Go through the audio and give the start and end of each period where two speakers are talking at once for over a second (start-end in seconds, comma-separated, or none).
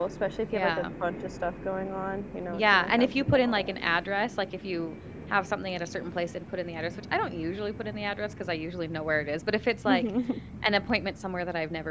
2.5-3.7